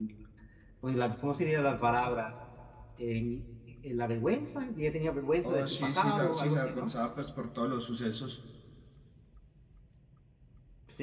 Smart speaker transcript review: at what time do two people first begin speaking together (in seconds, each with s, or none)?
5.4 s